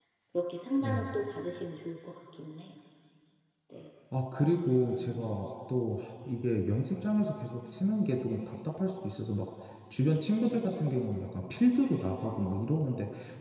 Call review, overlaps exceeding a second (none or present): none